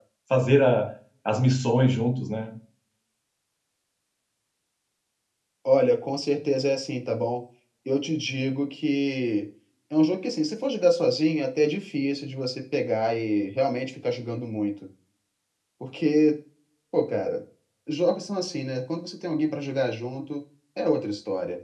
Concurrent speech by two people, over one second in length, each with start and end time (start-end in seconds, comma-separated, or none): none